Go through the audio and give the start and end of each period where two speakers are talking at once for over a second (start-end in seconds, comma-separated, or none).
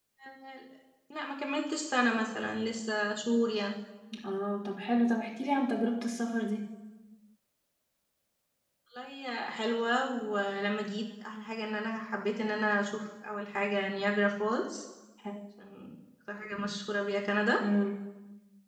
none